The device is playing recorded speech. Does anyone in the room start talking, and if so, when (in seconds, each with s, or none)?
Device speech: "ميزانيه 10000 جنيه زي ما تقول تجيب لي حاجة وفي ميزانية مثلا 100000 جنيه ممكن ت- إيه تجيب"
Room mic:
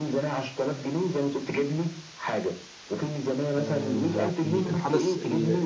3.5 s